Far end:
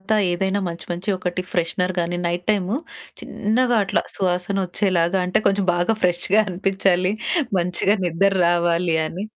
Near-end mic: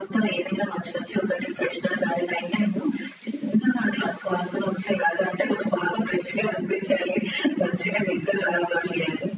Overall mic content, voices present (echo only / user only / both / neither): echo only